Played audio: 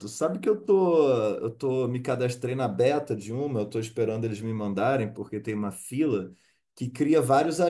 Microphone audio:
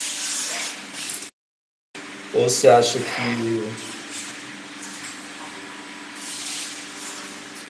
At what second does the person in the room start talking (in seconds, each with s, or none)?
2.3 s